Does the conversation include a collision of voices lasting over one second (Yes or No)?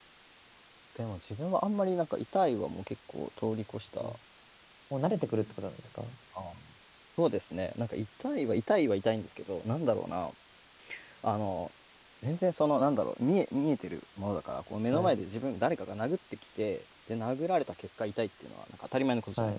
No